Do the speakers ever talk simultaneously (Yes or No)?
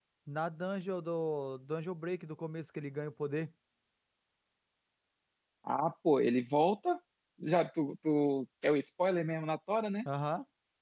No